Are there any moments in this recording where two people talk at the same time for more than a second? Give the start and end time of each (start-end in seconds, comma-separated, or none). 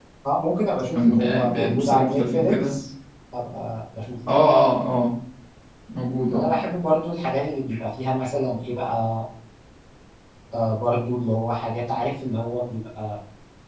1.0-2.7